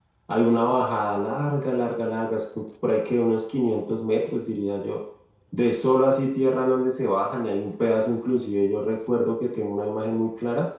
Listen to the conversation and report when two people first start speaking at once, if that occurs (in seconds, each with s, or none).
none